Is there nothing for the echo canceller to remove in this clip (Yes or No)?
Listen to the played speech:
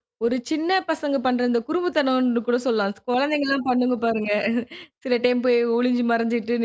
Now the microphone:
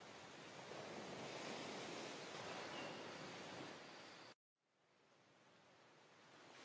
Yes